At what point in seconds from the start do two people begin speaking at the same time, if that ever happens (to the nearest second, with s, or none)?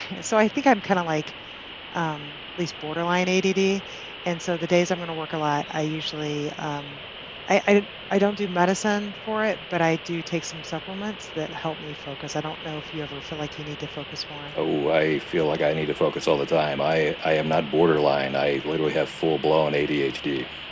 none